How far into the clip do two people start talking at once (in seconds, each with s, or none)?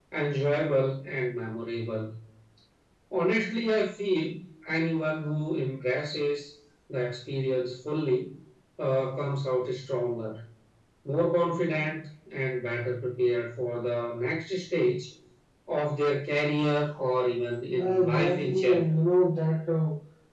17.7 s